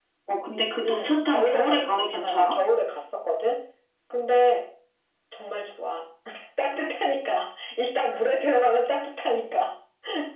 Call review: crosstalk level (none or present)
present